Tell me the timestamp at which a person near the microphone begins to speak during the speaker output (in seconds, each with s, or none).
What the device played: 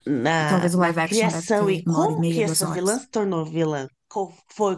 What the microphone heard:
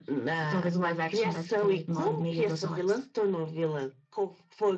none